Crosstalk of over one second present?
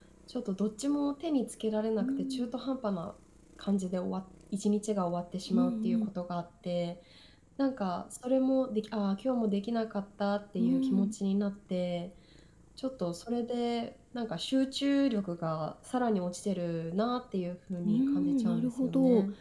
Yes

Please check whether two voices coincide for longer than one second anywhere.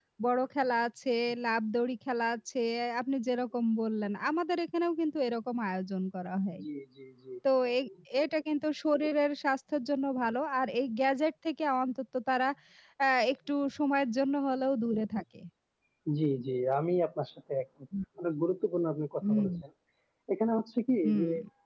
No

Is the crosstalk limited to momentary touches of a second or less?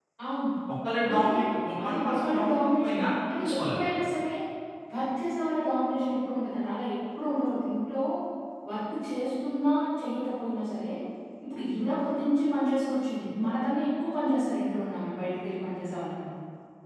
No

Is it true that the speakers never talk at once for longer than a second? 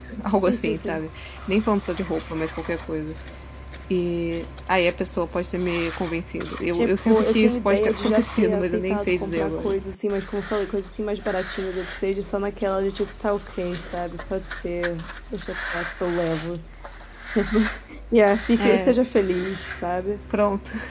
No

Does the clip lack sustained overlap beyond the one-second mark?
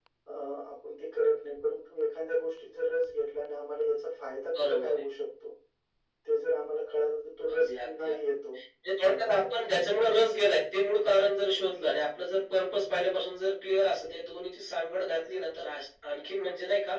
No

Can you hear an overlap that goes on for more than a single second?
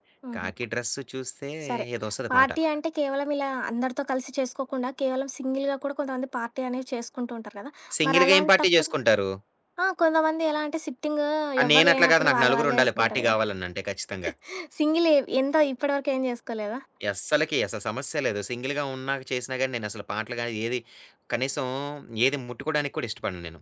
Yes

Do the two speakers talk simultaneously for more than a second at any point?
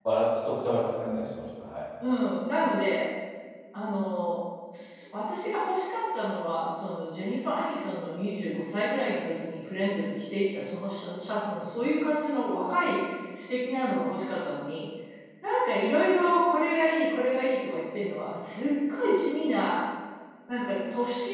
No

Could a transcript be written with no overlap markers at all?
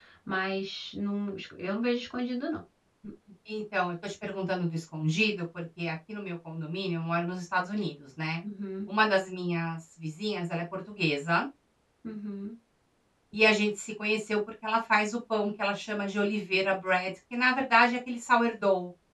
Yes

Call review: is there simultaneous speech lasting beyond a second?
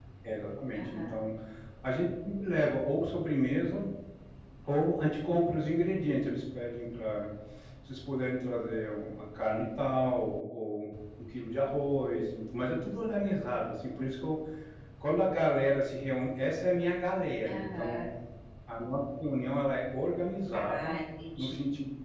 No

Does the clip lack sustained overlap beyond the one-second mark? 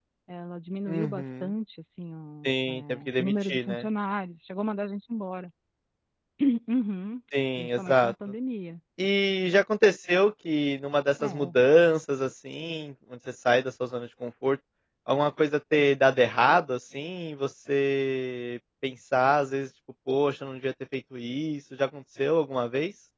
No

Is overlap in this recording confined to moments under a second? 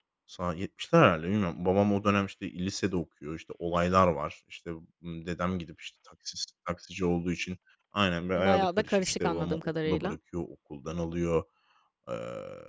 No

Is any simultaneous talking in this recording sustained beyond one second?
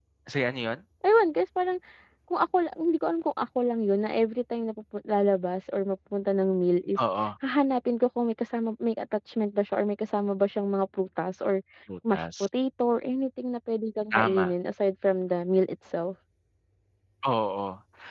No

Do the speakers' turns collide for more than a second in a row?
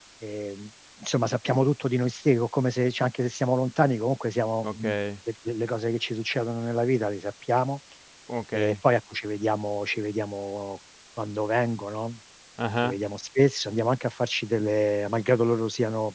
No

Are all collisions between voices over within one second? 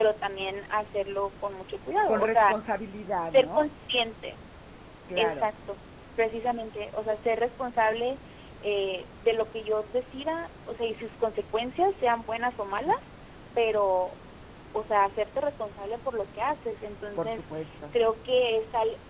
Yes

